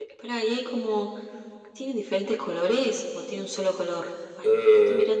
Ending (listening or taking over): taking over